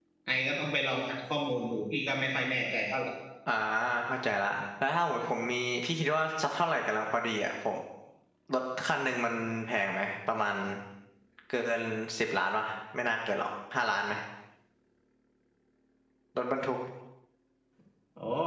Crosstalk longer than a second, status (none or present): none